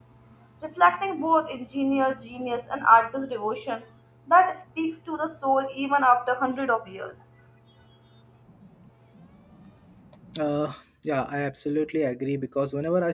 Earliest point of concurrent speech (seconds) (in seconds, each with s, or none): none